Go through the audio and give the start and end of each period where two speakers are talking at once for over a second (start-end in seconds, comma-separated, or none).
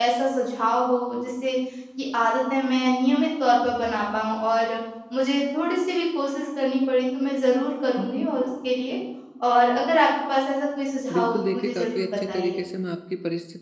11.1-12.6